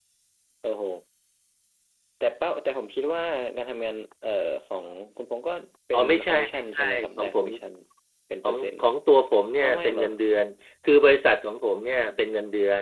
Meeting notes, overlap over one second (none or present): present